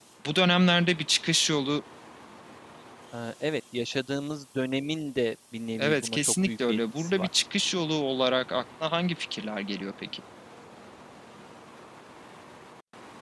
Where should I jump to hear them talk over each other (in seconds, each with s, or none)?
5.8 s